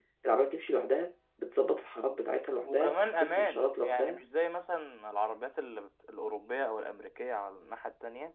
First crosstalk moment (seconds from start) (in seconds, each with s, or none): 2.6 s